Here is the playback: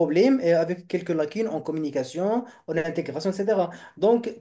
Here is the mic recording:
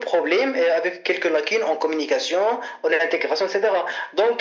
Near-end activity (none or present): none